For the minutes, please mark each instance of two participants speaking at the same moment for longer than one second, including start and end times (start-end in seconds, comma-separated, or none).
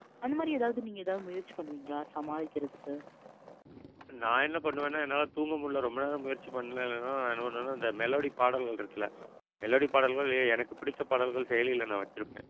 none